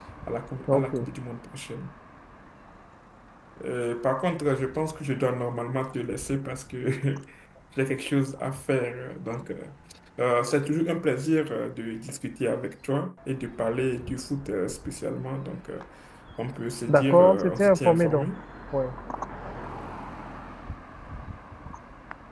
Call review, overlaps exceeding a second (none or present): present